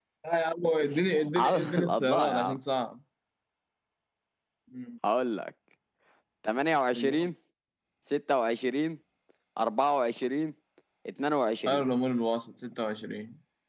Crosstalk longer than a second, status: present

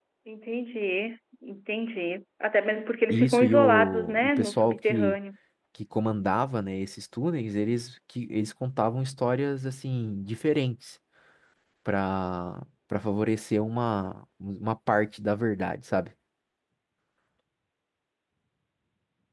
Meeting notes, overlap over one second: present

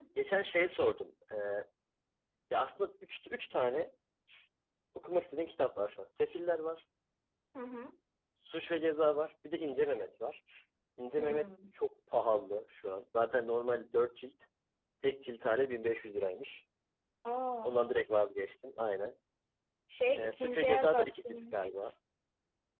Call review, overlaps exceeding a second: present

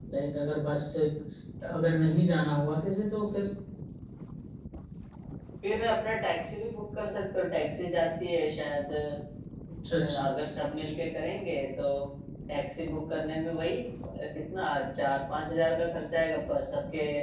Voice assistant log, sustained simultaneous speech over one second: none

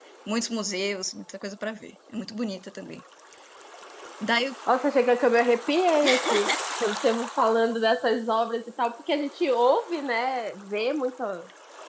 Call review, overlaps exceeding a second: none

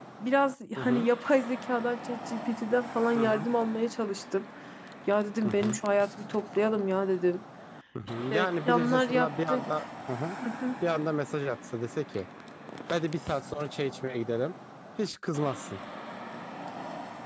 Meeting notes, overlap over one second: present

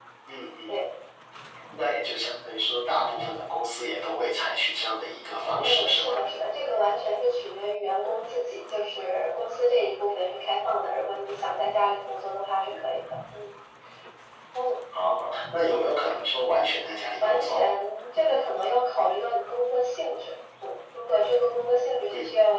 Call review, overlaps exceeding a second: none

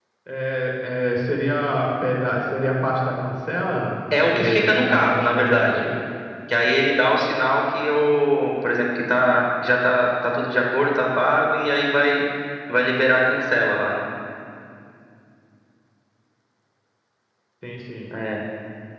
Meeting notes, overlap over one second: present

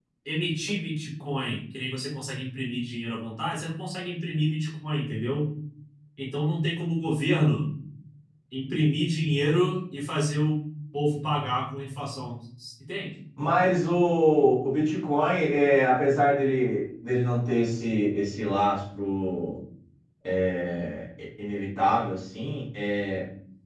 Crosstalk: none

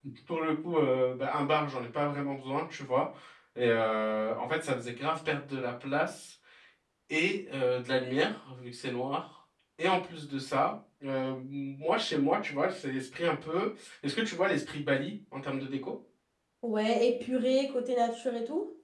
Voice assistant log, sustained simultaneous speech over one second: none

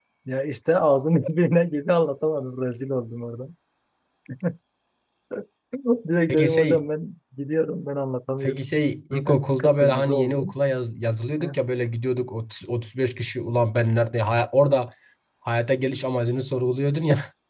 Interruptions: present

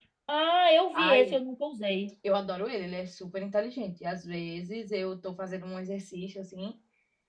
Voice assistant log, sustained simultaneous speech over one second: none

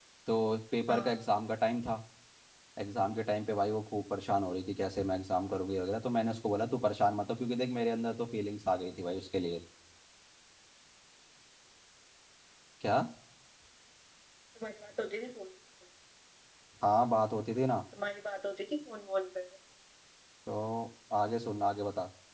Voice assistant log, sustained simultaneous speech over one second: none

